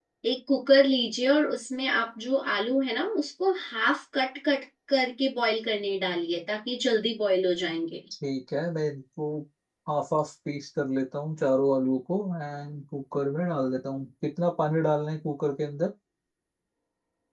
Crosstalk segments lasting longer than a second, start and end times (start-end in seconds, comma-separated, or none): none